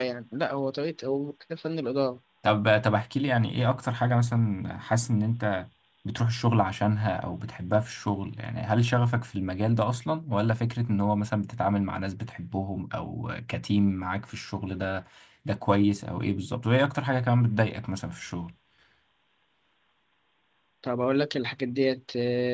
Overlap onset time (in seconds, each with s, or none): none